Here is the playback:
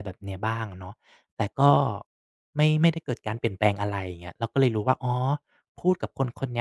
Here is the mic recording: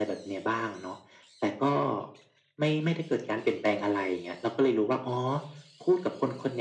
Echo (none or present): present